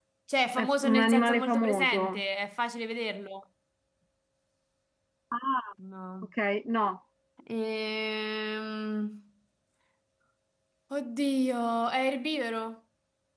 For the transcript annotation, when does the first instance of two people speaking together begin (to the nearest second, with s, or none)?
1 s